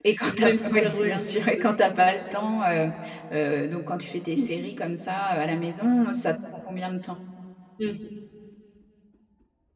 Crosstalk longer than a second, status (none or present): present